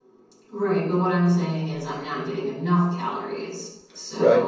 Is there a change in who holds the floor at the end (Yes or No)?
Yes